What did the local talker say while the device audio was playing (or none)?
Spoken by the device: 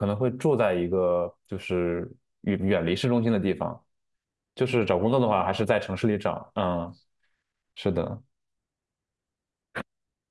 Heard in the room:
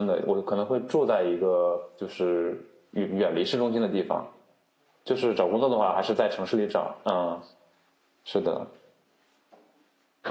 none